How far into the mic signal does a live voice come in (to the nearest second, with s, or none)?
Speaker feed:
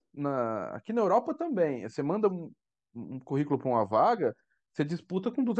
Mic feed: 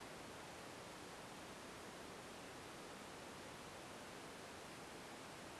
none